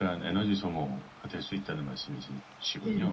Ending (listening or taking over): taking over